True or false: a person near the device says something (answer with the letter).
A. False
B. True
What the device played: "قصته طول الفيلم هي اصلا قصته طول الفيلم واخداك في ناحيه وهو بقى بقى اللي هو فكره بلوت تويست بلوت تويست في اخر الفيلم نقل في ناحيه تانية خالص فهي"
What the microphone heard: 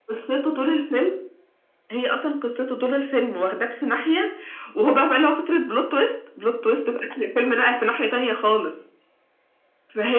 A